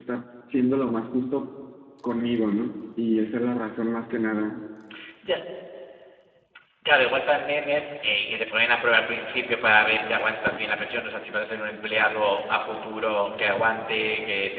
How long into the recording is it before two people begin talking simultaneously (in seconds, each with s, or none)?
none